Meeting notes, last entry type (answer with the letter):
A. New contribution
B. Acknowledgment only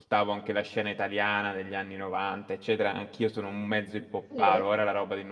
B